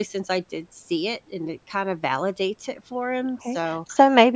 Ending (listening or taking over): taking over